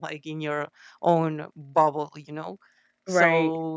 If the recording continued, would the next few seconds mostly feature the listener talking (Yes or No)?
No